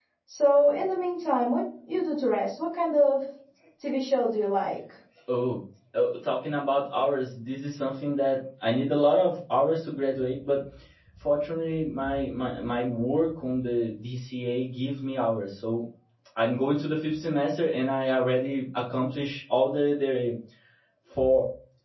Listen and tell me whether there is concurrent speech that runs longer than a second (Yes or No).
No